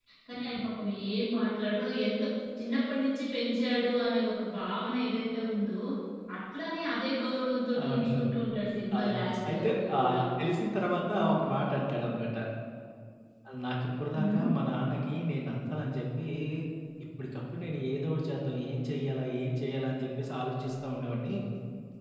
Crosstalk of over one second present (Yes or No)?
Yes